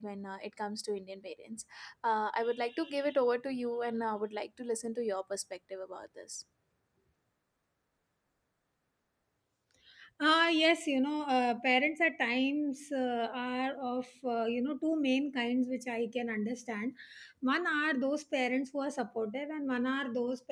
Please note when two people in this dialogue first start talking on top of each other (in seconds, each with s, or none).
none